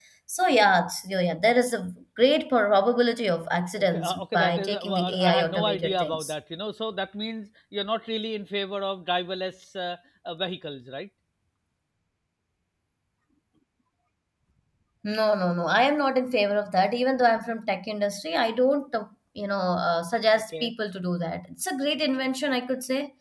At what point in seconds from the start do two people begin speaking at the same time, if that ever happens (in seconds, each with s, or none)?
3.8 s